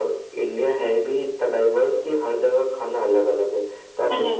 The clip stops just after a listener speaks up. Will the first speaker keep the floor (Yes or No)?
Yes